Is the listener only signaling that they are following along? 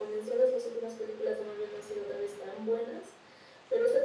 Yes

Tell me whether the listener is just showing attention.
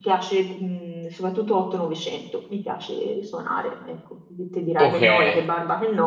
Yes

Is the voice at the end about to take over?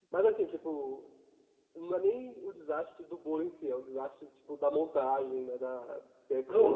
Yes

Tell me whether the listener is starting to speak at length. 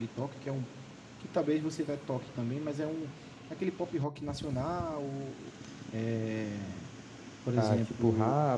Yes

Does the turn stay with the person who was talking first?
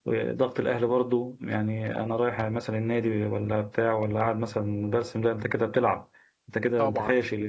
No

